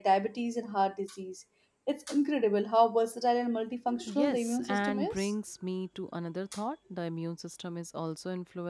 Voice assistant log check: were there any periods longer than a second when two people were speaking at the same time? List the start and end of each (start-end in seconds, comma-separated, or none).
4.0-5.3